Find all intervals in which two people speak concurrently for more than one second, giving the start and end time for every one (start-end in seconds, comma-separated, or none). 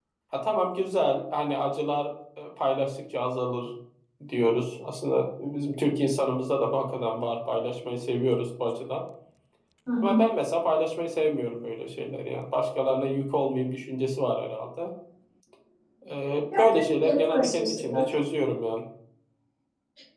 16.6-18.1